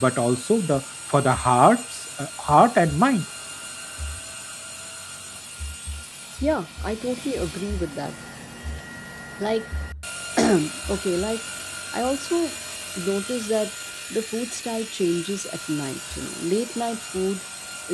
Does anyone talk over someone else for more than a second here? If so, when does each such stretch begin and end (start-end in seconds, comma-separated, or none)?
none